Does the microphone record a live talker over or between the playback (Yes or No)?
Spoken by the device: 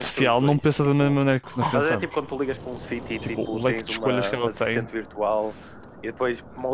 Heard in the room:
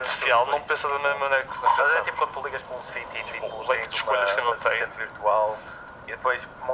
No